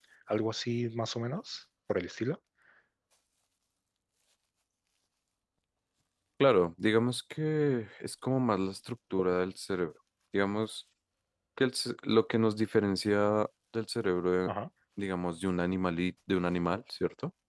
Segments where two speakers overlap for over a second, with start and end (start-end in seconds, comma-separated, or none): none